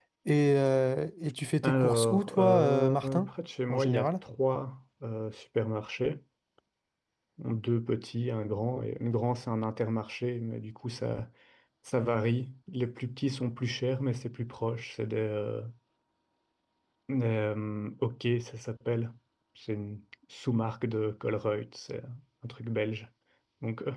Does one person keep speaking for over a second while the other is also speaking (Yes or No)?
Yes